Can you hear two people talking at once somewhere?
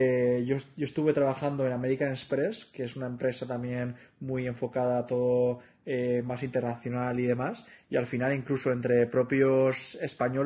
No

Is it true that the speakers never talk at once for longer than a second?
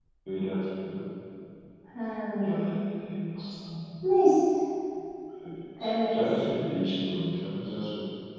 Yes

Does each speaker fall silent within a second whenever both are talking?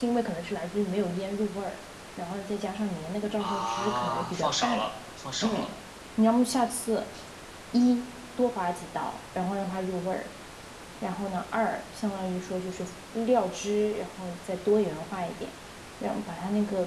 No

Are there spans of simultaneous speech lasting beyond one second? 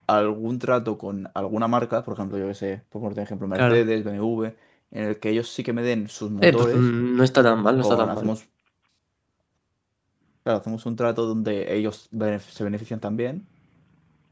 No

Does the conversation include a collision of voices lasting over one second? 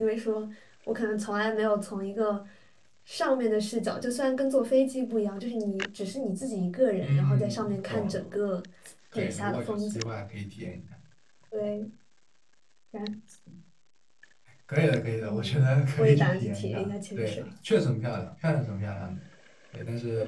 Yes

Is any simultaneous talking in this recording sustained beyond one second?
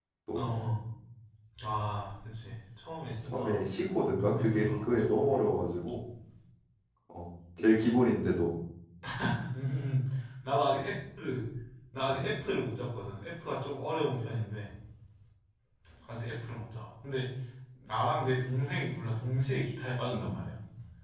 Yes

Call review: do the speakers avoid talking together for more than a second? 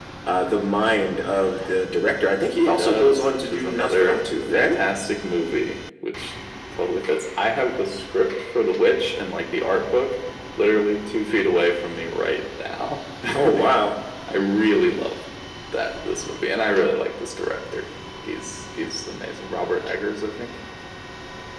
No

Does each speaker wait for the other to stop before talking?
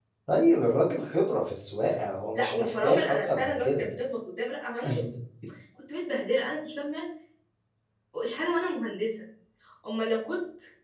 No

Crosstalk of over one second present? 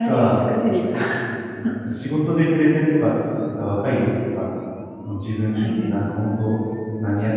No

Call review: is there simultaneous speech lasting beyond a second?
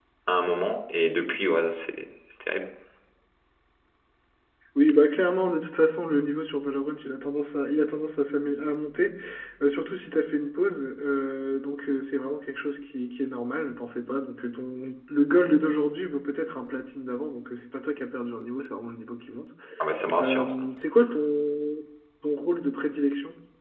No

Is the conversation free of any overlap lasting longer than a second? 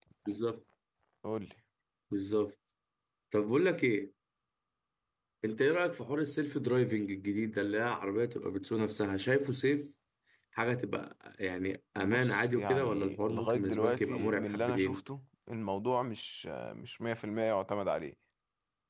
No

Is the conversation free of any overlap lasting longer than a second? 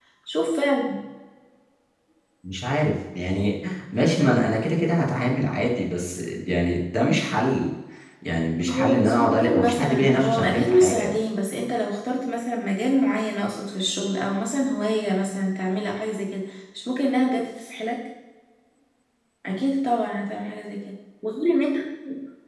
No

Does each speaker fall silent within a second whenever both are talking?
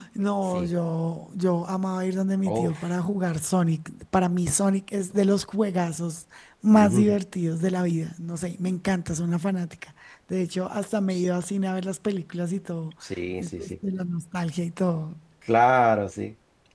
Yes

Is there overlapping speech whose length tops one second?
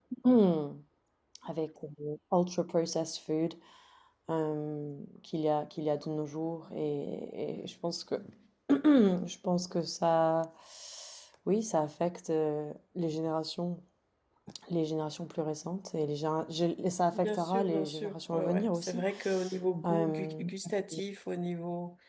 Yes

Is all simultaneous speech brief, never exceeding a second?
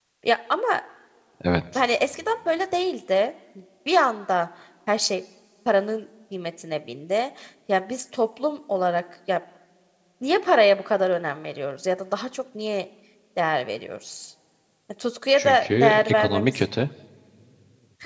No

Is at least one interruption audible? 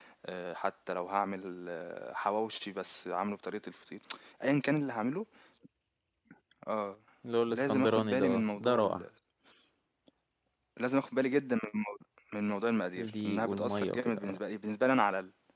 Yes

